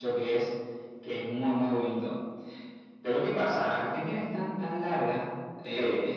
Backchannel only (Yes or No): Yes